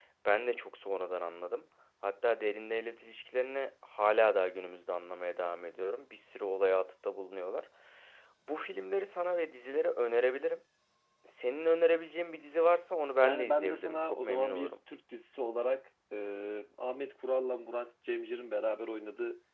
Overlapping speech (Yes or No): Yes